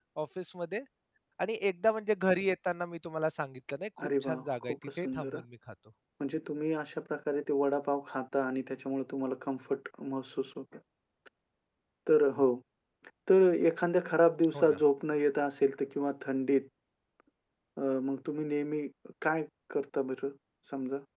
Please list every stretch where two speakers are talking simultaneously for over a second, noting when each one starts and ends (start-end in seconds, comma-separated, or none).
4.0-5.4